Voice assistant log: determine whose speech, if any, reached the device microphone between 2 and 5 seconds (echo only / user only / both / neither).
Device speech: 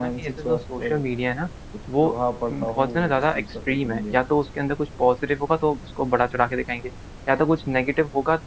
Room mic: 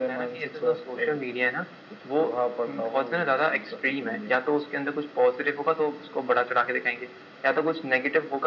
echo only